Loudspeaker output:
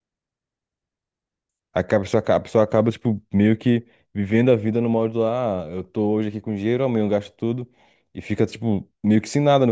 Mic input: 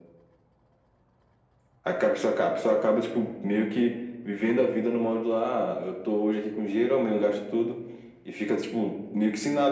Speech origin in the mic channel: echo only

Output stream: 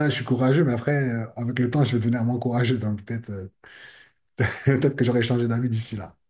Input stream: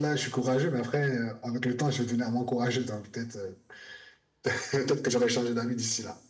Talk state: echo only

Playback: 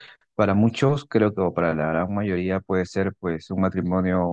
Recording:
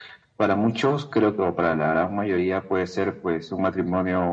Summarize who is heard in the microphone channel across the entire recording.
echo only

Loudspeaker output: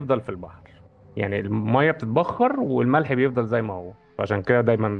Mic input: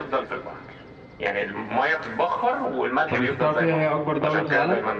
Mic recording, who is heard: both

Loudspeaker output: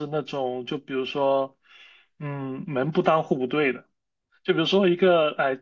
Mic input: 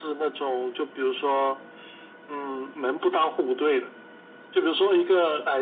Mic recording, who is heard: echo only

